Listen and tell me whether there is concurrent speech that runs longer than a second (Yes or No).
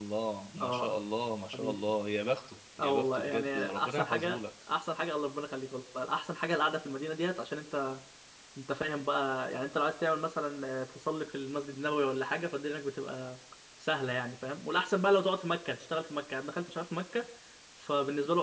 Yes